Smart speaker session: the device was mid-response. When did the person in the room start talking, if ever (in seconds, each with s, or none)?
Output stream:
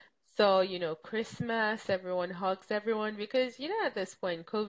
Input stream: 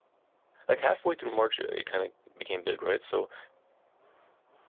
0.7 s